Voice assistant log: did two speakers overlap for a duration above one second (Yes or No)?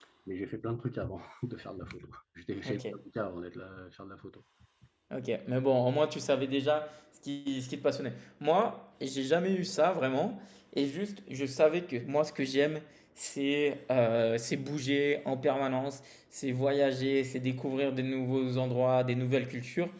No